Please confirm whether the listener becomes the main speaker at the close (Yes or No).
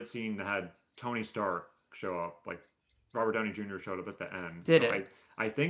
No